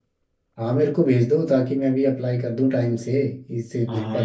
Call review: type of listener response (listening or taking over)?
taking over